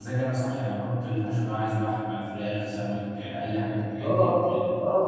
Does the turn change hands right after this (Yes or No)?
Yes